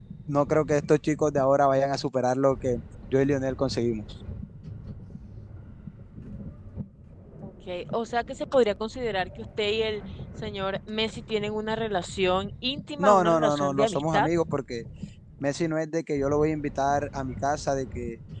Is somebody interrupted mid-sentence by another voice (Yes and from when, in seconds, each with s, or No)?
Yes, from 12.9 s